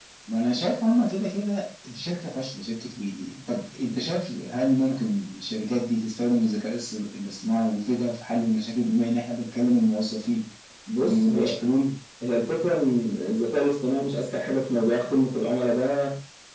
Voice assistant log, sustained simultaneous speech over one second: none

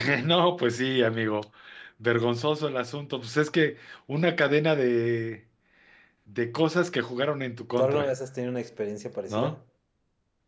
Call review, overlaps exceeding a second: none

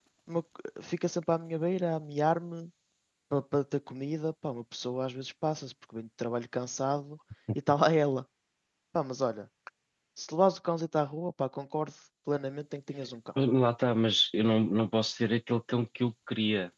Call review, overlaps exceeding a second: none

